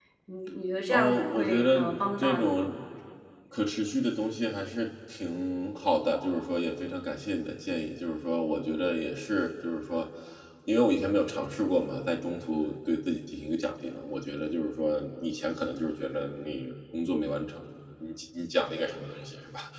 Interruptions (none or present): present